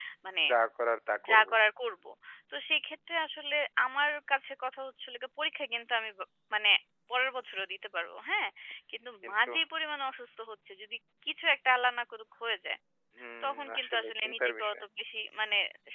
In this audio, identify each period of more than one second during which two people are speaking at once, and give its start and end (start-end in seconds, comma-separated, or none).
13.4-14.7